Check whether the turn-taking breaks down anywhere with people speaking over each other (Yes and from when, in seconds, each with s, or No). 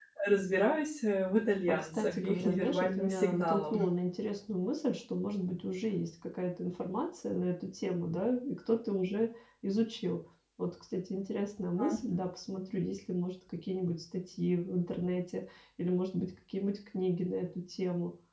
Yes, from 1.7 s